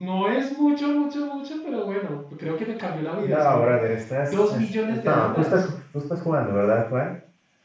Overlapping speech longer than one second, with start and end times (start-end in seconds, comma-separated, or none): 4.3-5.7